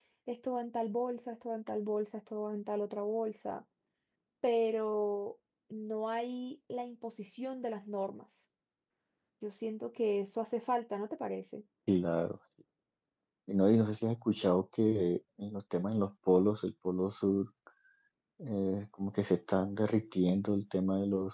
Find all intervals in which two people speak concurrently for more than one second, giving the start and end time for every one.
none

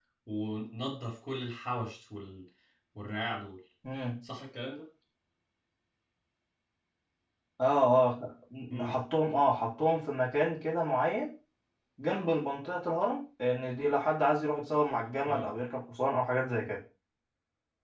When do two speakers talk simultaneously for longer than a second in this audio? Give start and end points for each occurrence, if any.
none

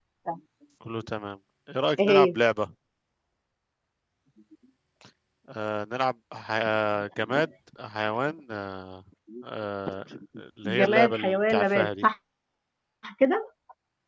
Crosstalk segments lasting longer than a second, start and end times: 10.7-12.1

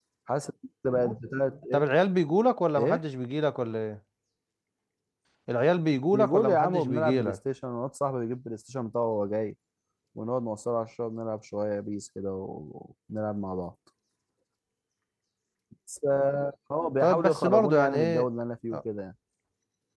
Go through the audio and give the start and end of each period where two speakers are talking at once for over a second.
6.1-7.4, 17.0-18.3

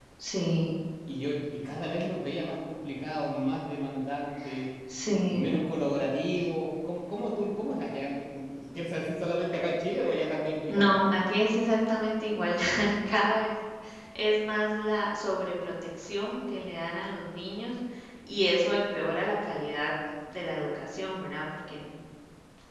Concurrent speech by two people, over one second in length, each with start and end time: none

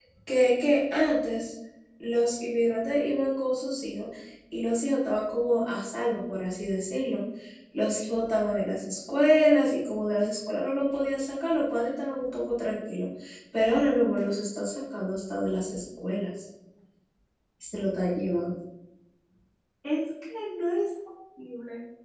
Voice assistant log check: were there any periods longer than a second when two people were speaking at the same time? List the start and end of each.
none

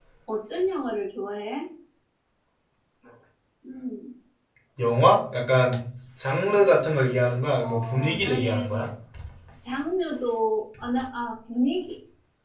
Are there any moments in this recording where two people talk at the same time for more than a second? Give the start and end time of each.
7.6-8.9

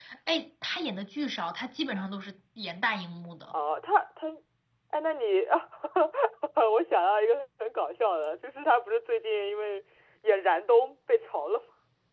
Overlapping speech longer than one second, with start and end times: none

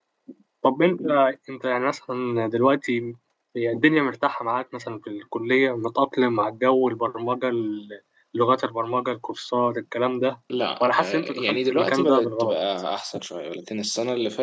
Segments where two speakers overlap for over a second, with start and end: 10.8-12.6

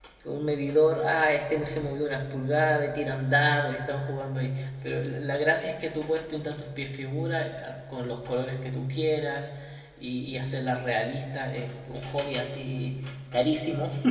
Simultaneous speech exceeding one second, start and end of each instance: none

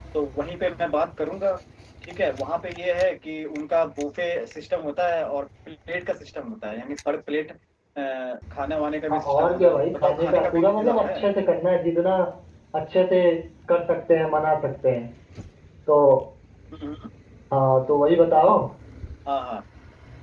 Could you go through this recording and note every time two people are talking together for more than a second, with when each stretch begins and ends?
9.1-11.2

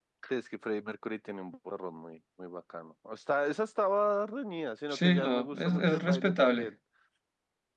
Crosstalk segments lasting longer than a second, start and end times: 4.9-6.7

